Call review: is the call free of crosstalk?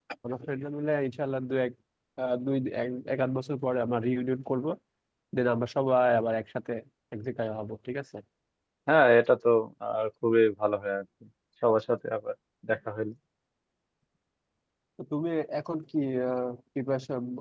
Yes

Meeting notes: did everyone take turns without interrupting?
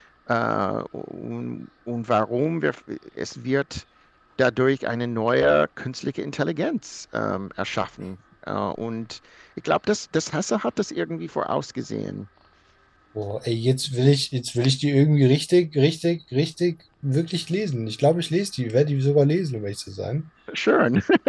Yes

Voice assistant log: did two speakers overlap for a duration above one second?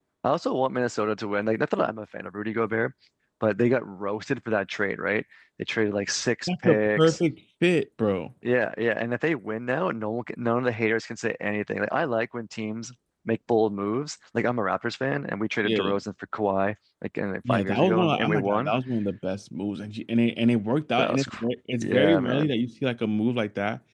Yes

